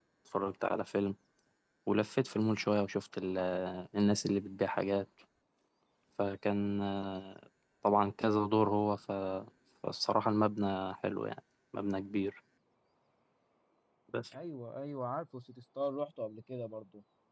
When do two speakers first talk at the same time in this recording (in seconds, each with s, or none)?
none